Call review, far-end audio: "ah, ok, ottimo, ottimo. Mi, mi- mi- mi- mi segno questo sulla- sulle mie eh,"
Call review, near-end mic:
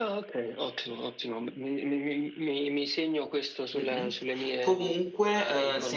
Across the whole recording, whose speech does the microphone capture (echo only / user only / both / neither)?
both